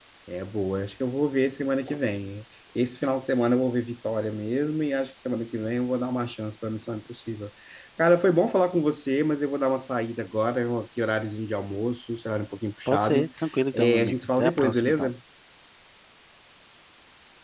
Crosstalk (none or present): present